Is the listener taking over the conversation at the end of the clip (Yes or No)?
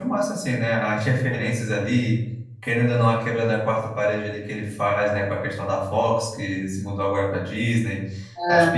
No